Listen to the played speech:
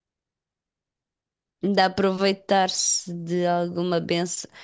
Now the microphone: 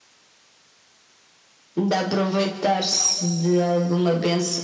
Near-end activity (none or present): none